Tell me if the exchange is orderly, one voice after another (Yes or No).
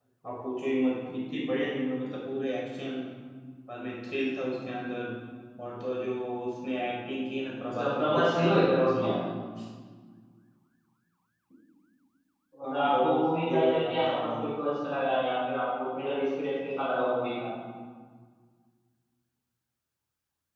No